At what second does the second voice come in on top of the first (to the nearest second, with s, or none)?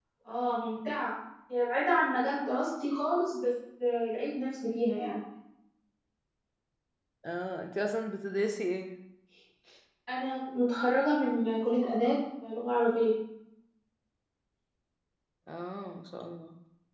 none